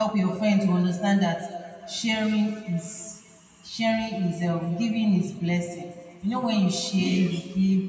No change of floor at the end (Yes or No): Yes